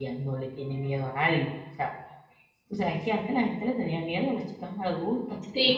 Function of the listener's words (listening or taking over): taking over